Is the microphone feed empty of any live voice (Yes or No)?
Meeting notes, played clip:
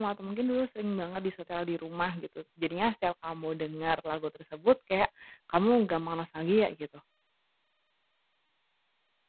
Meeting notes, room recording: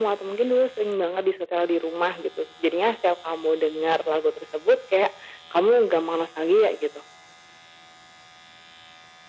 Yes